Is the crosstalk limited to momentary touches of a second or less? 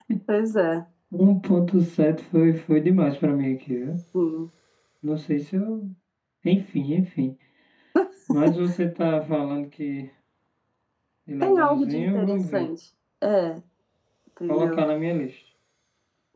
No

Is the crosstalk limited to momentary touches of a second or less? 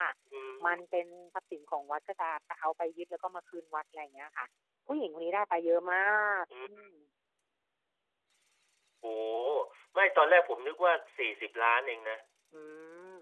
Yes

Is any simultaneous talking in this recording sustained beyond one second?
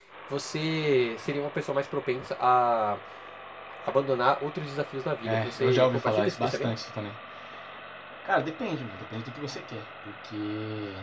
Yes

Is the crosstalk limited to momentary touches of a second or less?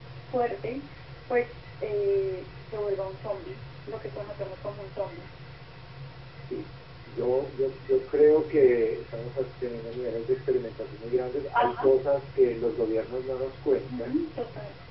Yes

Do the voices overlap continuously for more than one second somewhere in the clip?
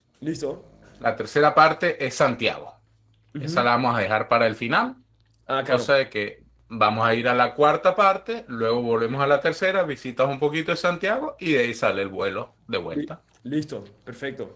No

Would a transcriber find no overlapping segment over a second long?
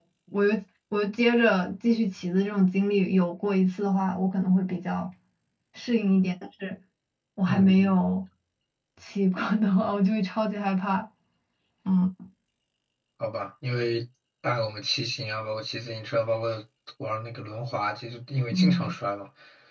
Yes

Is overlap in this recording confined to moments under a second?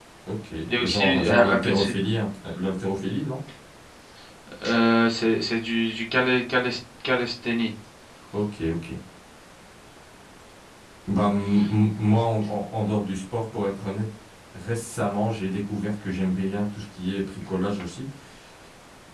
No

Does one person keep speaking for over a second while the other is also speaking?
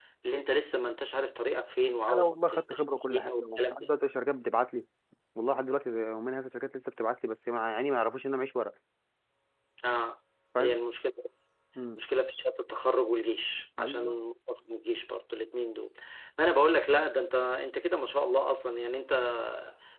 Yes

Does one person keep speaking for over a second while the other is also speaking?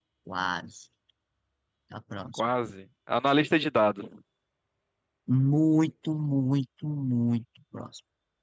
No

